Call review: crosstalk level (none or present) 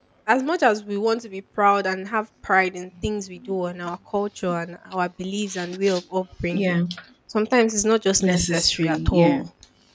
present